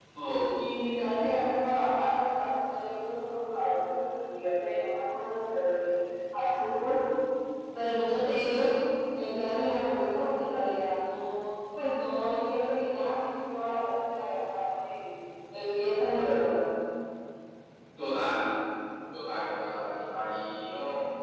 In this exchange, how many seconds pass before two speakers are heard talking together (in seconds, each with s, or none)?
none